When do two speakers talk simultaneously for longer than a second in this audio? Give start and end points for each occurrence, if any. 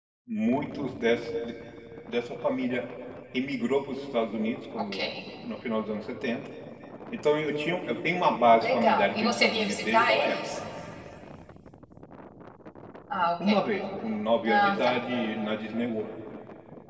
8.6-10.4

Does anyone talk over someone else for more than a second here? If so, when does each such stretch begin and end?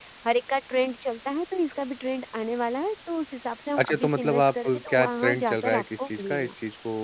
3.8-6.5

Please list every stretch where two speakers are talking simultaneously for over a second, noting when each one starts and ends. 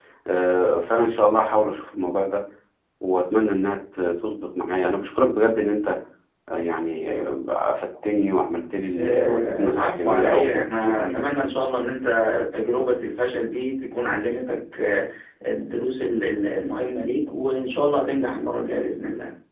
9.0-11.3

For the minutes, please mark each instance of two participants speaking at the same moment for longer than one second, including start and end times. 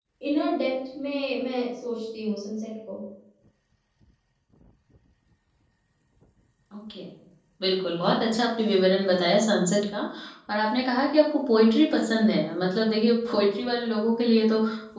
none

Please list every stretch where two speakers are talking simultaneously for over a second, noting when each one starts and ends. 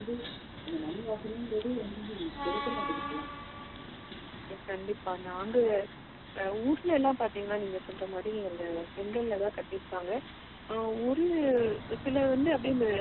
none

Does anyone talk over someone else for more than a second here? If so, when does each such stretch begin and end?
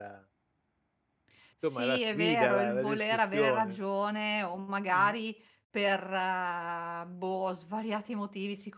1.6-3.8

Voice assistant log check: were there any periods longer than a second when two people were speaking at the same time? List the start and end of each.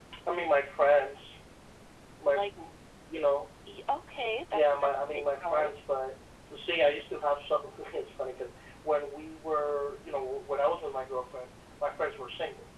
4.5-5.7

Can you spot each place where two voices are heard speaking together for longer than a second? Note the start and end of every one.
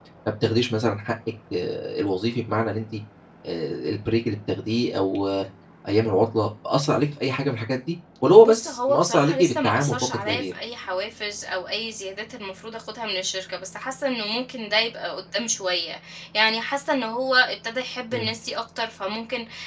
8.4-10.5

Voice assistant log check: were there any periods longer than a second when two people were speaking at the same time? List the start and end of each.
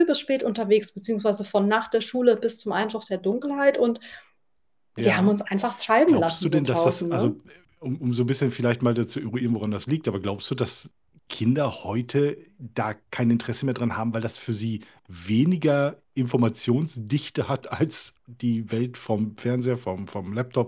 6.1-7.3

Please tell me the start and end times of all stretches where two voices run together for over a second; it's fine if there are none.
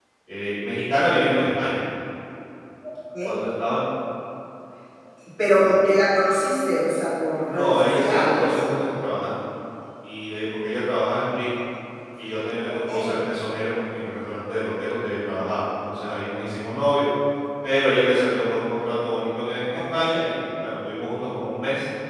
7.3-8.8

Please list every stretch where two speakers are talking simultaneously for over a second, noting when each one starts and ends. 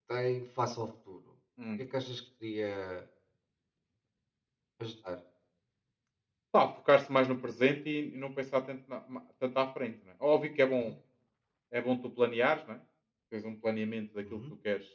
none

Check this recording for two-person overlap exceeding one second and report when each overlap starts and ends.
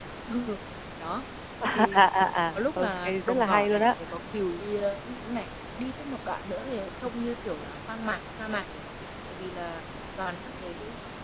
2.5-3.8

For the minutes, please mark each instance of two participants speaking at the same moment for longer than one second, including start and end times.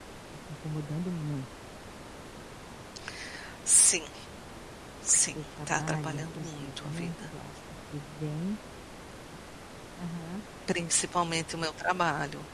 5.3-7.1

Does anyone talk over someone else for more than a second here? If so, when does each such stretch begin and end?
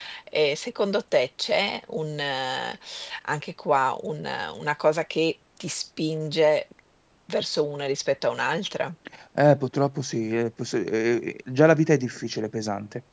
none

